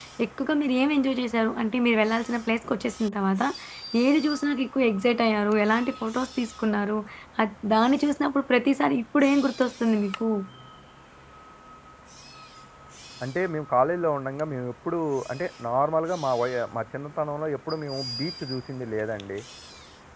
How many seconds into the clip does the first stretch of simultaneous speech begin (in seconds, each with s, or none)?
none